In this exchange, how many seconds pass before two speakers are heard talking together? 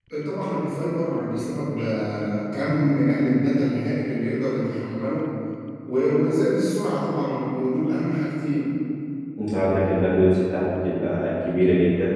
none

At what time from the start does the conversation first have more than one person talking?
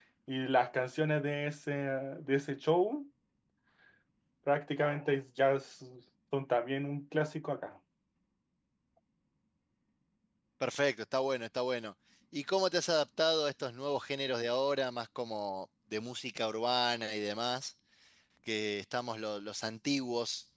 none

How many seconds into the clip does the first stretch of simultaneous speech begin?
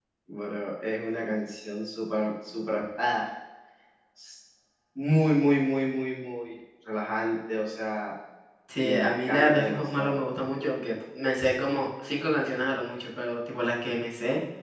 8.8 s

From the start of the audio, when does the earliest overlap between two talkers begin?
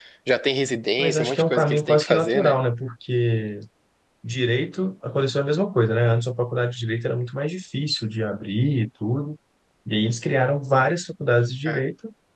1.0 s

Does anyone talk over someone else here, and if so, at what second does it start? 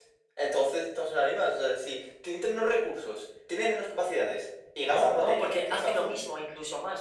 4.8 s

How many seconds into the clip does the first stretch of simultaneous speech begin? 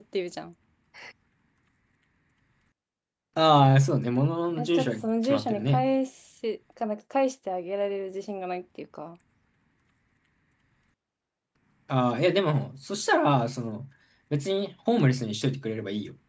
4.6 s

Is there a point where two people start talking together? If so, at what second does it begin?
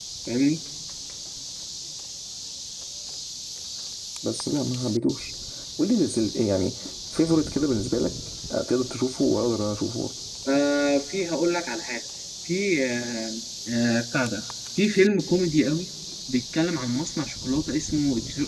none

